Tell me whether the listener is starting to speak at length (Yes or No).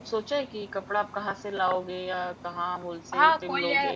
Yes